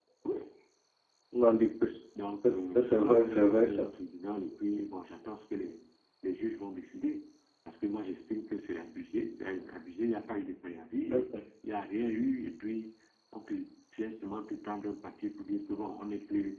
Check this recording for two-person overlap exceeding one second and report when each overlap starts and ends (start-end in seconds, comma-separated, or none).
2.4-3.9